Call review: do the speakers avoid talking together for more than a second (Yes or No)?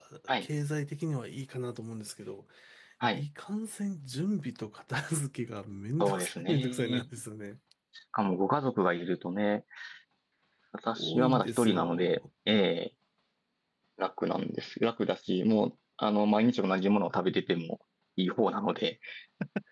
No